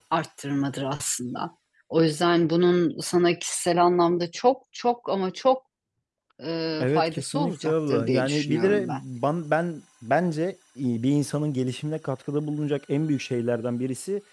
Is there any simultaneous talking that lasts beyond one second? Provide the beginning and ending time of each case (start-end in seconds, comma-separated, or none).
6.8-9.0